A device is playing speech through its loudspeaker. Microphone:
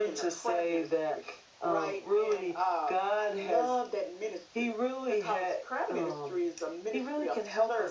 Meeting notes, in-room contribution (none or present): none